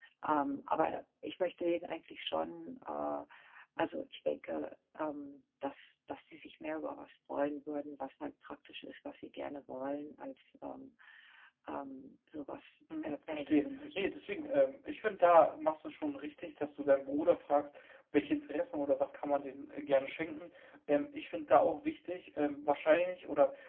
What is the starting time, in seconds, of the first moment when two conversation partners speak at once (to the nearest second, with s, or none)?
13 s